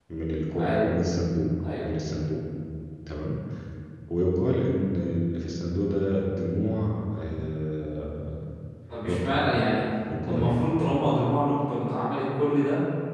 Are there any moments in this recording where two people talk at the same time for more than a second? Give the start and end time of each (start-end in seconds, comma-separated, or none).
none